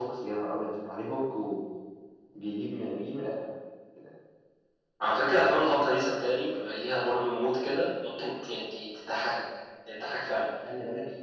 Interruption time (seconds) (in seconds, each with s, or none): none